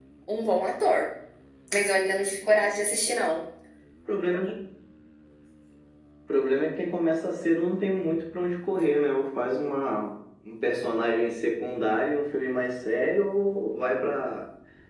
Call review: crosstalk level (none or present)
none